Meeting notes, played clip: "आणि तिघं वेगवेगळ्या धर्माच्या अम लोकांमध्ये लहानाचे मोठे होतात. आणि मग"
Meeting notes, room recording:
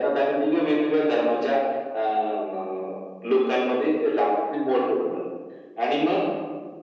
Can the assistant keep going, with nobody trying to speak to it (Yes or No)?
Yes